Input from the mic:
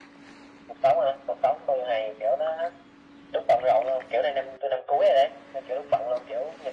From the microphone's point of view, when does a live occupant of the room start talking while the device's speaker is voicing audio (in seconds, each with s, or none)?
none